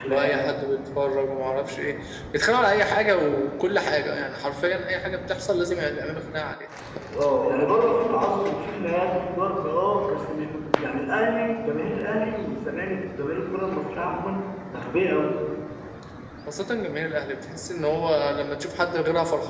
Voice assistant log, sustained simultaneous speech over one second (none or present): none